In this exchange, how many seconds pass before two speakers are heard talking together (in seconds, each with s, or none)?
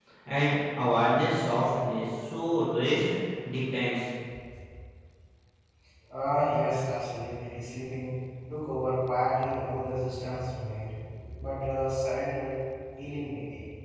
none